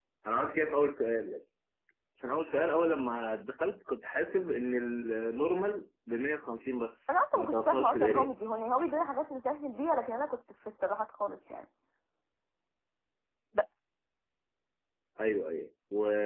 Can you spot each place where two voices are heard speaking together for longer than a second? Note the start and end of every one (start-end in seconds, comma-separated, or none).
7.1-8.3